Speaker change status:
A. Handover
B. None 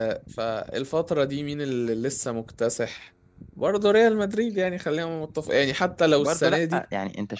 A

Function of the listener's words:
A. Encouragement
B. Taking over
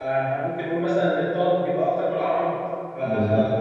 A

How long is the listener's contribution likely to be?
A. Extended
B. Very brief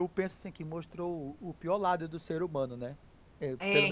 A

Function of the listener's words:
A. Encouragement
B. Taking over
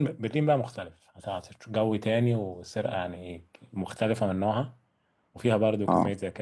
A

